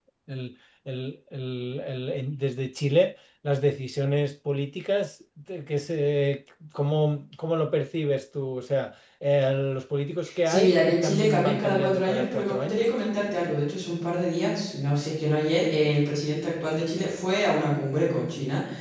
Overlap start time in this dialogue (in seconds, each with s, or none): 10.4 s